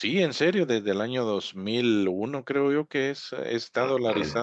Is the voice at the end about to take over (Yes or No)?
Yes